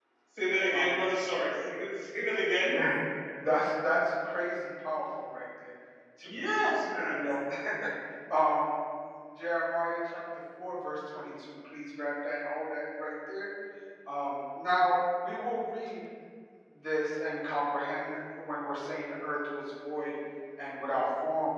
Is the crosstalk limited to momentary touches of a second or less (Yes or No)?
Yes